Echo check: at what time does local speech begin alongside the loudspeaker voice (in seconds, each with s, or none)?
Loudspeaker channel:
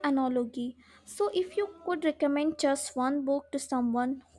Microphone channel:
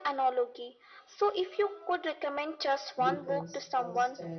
3.0 s